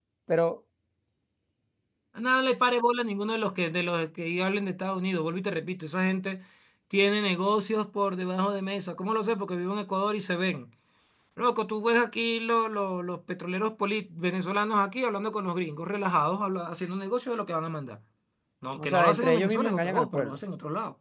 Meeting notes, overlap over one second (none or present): present